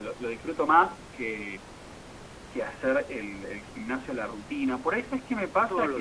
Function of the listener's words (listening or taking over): listening